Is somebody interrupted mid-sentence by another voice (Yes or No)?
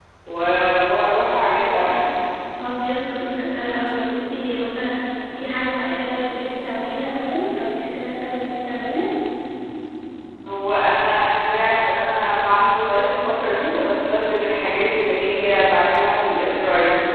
No